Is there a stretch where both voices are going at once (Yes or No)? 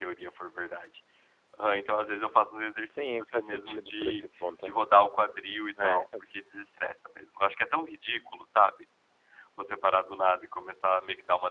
Yes